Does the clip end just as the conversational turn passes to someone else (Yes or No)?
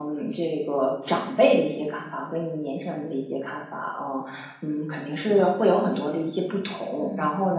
No